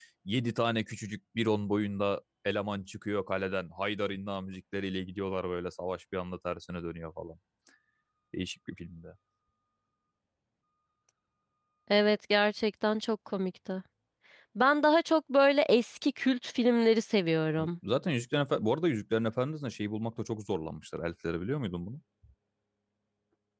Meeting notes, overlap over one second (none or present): none